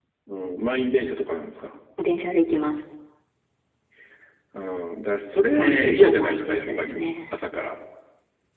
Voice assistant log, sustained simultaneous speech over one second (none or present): present